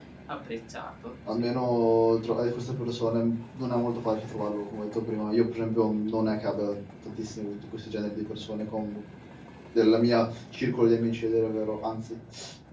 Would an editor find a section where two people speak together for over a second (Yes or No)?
No